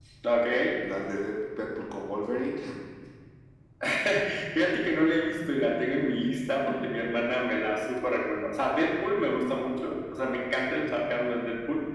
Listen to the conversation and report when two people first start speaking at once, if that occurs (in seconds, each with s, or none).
none